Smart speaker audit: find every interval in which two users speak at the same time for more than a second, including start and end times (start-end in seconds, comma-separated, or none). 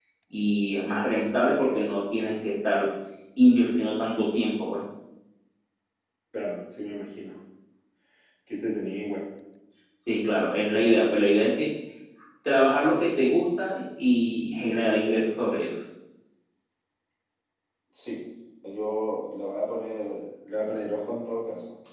none